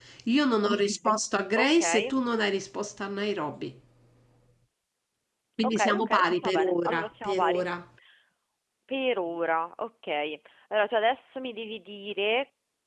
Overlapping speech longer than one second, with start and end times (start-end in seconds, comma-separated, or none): 5.6-7.6